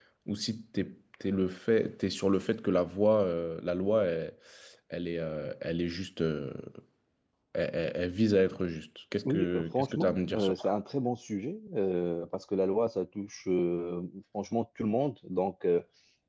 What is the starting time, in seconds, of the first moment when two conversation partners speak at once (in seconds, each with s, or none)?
9.2 s